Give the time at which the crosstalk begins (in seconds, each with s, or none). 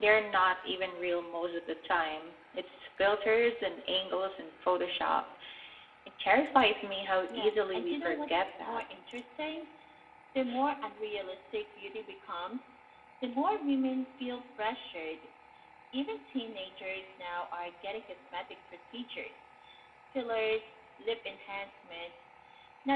7.3 s